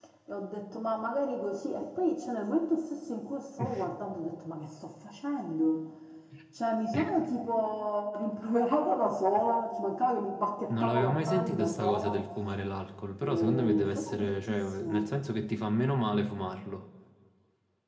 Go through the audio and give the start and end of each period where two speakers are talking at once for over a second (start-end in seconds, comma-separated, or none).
10.8-12.2, 13.2-15.1